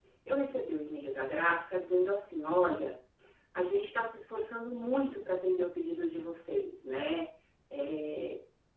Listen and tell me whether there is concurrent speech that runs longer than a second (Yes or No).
No